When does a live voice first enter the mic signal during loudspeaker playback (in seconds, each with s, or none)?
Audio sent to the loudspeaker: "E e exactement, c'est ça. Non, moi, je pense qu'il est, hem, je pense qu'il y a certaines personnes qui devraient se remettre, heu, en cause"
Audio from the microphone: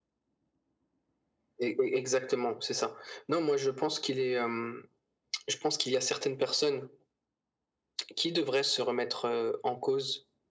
none